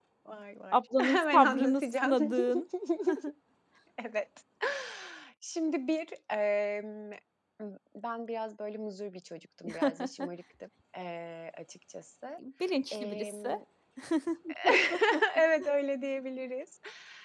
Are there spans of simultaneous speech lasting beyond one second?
Yes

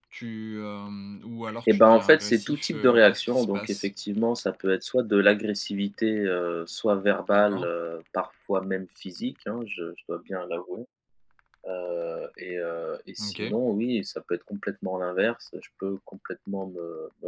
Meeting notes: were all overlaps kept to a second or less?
No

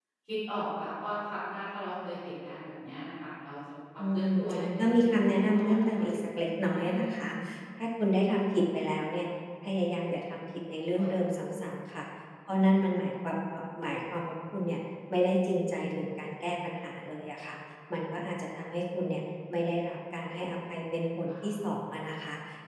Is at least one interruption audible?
Yes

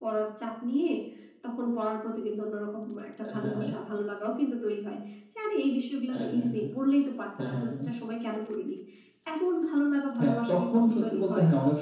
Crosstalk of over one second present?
Yes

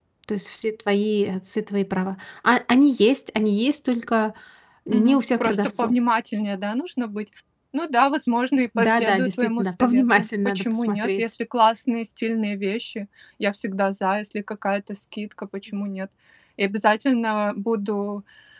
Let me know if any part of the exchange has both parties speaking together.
Yes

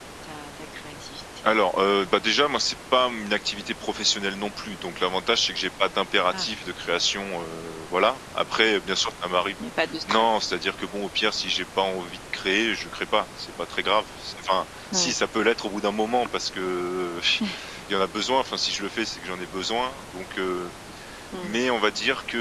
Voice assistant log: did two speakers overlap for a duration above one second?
No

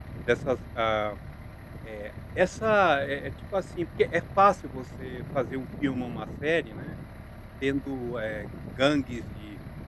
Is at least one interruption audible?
No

